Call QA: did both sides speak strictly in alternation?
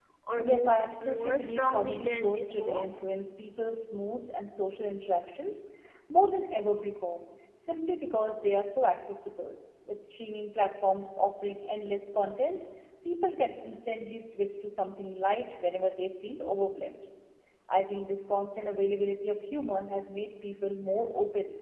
No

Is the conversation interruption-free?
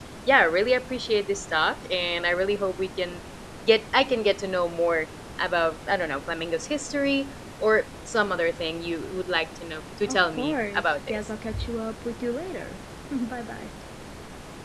No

